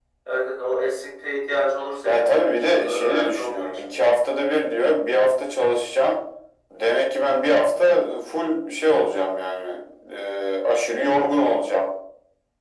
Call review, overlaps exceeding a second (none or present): present